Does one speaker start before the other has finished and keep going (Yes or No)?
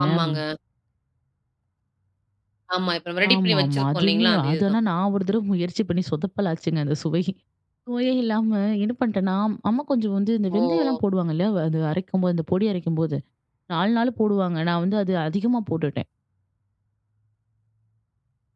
Yes